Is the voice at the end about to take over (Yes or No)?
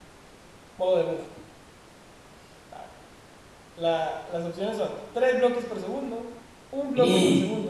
No